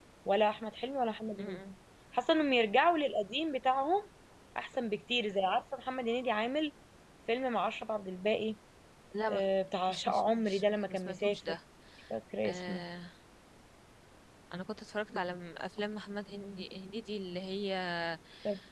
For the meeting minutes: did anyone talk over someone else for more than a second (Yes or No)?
Yes